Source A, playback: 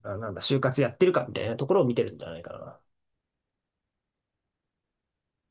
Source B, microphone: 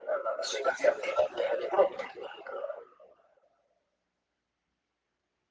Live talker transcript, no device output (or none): none